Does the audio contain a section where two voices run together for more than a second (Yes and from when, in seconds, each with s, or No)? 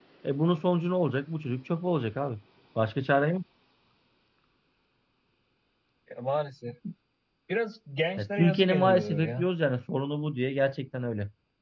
Yes, from 8.2 s